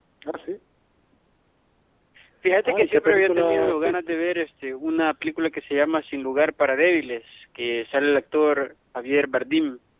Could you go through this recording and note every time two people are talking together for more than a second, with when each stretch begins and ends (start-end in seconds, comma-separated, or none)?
2.6-4.2